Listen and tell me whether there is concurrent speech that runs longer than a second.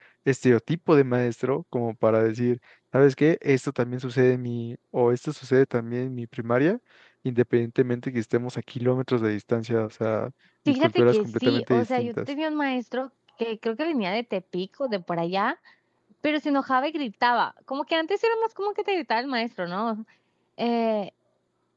Yes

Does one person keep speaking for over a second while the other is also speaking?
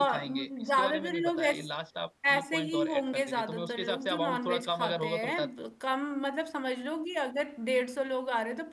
Yes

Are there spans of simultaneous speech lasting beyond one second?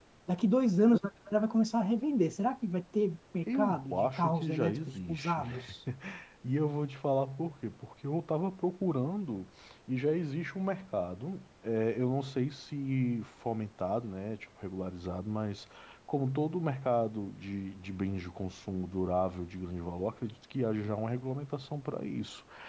Yes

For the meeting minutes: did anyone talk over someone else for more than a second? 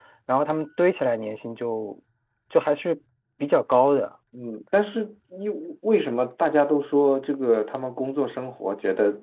No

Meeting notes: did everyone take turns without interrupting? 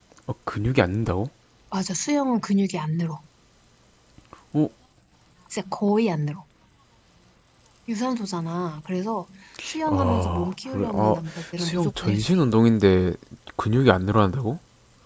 No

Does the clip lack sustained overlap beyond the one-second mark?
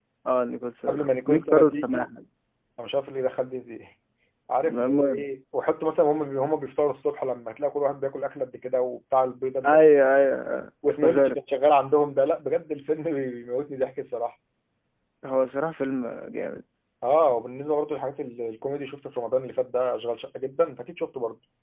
No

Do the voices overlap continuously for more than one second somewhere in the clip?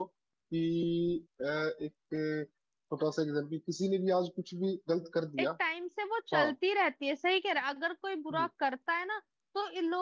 No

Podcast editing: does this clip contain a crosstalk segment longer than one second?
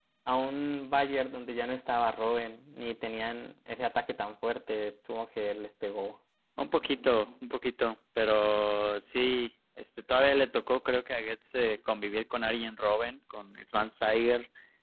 No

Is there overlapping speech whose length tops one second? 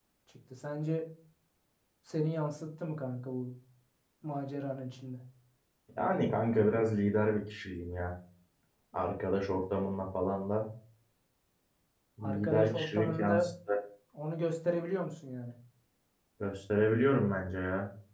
Yes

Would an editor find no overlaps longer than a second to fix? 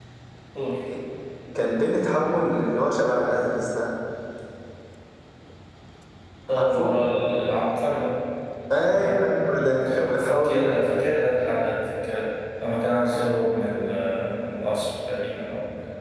No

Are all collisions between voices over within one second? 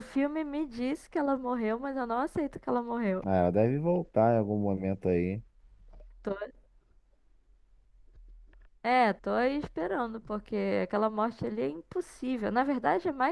Yes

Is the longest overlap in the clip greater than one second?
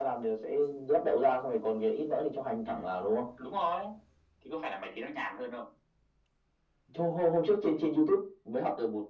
No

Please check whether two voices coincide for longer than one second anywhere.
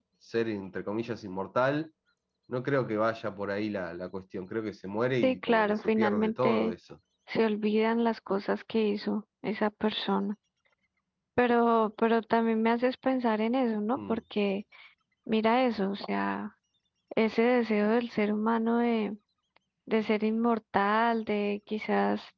Yes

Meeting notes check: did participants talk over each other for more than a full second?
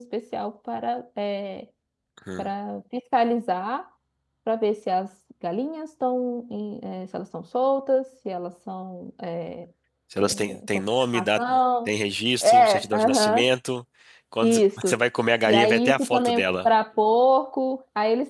Yes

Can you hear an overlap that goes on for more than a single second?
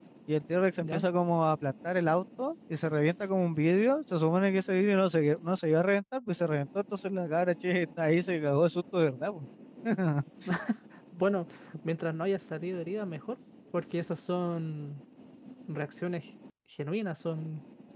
No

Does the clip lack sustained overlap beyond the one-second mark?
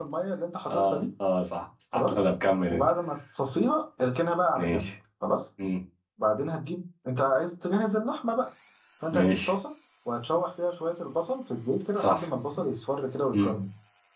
Yes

